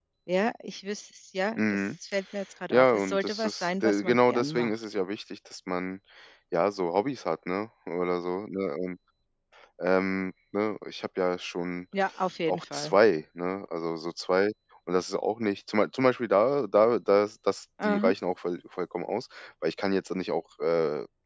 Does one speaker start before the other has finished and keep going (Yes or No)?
Yes